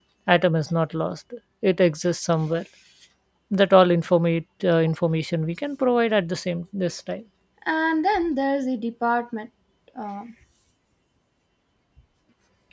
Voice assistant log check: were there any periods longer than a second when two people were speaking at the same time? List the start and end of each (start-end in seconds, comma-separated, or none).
none